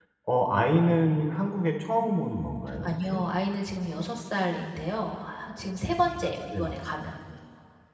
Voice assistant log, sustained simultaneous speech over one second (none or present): none